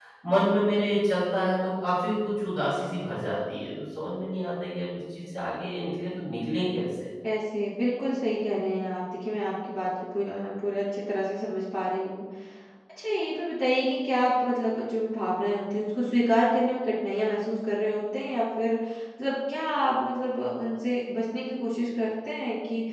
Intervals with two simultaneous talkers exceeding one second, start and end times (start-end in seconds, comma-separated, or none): none